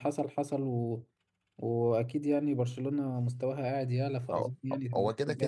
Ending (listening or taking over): taking over